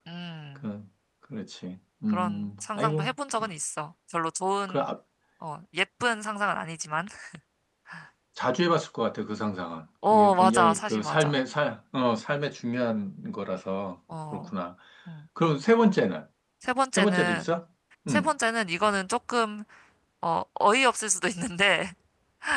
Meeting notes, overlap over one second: present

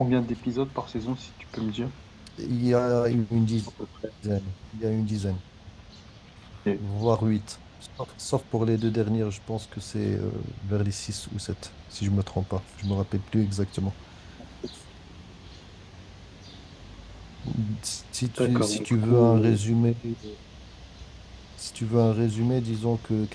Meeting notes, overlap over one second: present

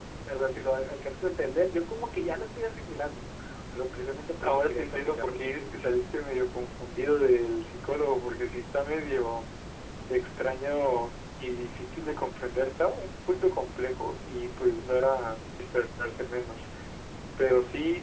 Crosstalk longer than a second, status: present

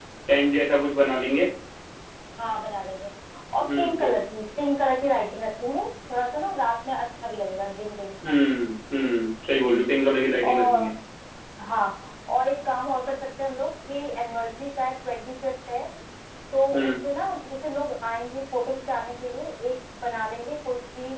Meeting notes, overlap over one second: none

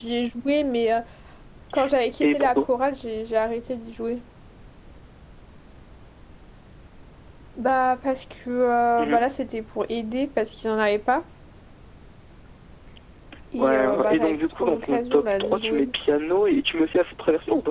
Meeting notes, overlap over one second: present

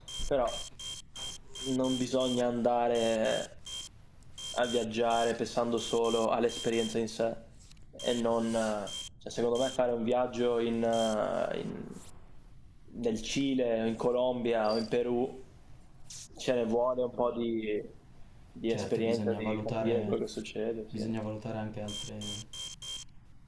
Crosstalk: present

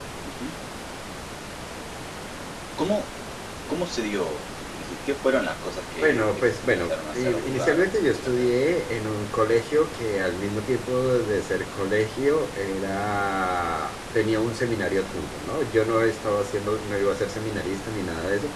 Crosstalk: present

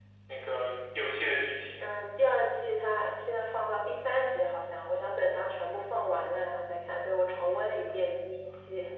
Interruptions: none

